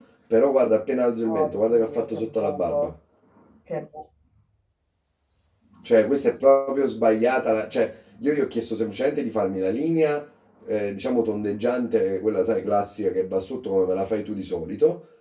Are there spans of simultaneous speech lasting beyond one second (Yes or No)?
Yes